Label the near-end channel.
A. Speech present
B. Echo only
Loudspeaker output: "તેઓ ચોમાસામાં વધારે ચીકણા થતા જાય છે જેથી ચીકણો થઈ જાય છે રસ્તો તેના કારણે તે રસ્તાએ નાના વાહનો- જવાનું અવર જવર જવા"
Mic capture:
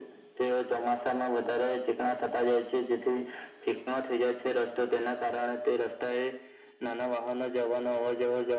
B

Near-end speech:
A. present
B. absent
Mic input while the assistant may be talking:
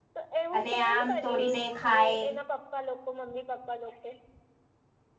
A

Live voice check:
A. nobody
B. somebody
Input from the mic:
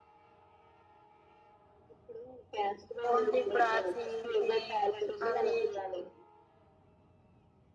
B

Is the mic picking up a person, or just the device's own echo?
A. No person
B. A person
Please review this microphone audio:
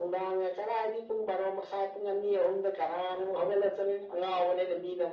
A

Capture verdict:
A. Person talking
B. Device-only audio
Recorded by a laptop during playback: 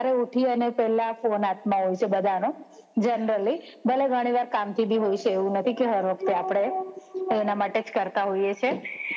B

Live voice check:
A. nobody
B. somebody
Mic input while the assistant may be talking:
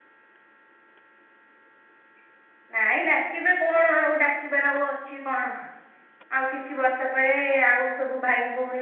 A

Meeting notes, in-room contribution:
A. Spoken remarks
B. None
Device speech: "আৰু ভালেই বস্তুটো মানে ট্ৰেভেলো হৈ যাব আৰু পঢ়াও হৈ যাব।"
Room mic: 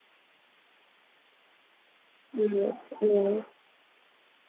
A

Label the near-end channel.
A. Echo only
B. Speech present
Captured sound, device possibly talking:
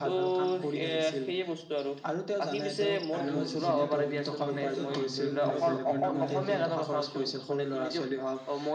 B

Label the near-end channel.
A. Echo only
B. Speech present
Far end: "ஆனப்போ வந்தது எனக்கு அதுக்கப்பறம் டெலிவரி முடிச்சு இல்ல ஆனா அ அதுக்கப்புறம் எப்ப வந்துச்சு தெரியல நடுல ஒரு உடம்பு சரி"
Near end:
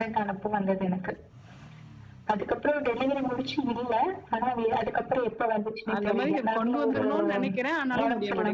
B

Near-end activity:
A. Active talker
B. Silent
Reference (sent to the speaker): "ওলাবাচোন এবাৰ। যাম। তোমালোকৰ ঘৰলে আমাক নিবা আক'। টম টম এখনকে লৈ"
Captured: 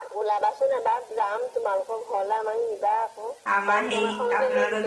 A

